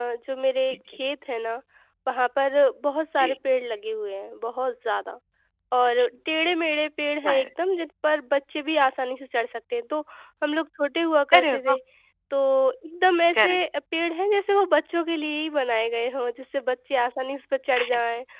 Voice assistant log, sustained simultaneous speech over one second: none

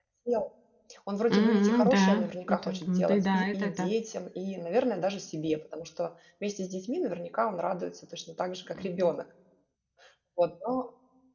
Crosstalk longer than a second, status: present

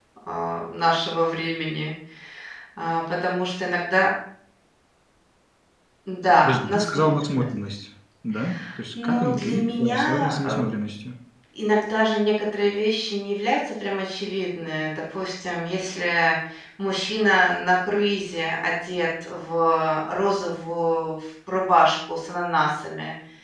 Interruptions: present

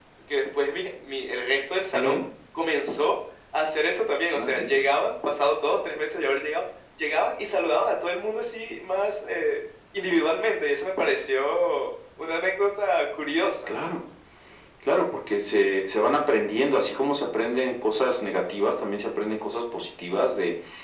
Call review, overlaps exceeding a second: none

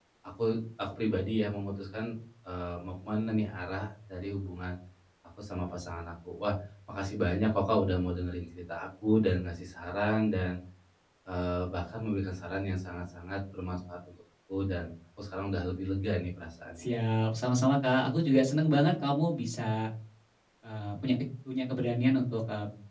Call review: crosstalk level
none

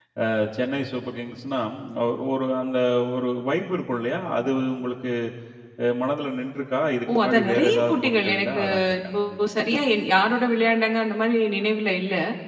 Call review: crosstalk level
present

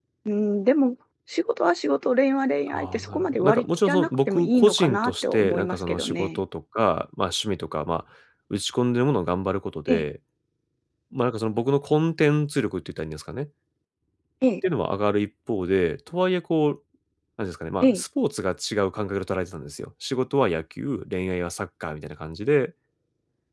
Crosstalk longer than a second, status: present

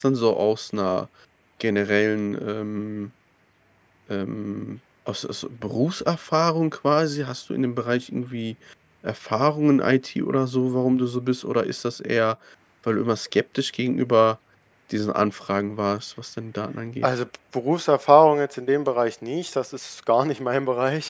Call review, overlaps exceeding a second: none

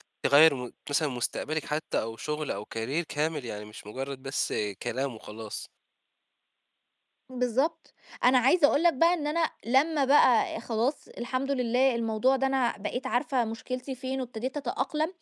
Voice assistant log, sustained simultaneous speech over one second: none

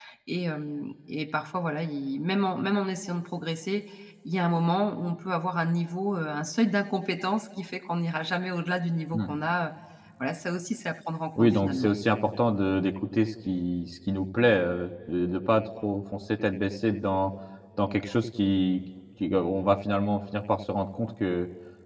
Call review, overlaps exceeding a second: none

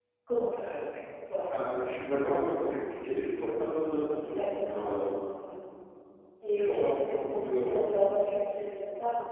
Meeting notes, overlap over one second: present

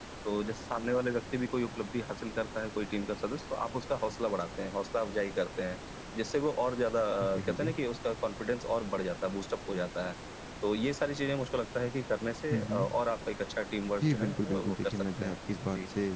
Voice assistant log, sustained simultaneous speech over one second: present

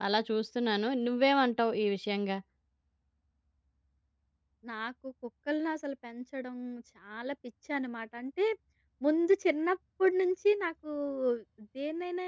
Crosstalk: none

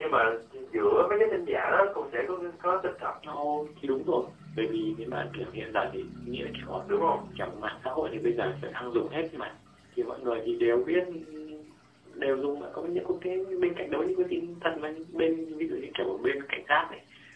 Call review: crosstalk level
none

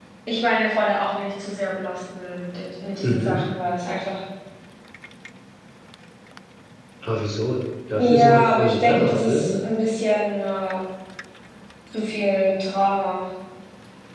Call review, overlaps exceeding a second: present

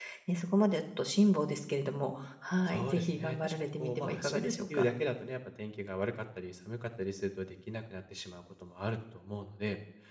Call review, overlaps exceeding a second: present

